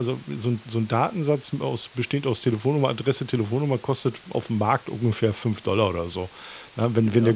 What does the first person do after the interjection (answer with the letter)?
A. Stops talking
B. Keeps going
B